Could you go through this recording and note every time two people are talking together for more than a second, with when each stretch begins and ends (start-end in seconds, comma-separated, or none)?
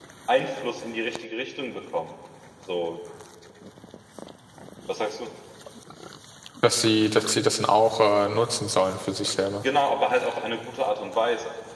none